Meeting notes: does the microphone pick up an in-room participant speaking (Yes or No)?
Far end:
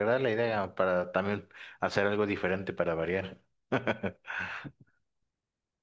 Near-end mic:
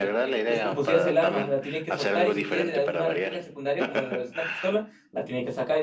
Yes